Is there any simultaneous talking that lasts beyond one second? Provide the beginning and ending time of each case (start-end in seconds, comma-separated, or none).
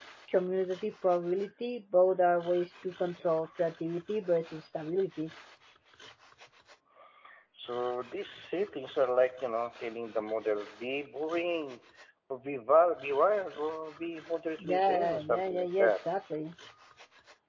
14.6-15.9